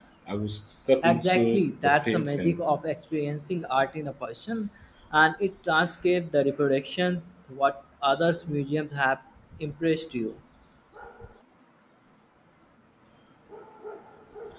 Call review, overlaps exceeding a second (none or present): present